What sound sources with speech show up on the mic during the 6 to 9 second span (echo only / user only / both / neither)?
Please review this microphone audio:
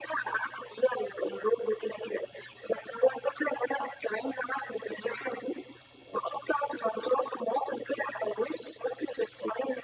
echo only